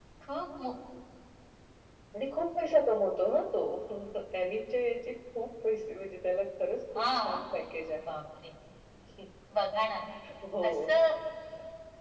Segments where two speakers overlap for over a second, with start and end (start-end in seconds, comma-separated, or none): none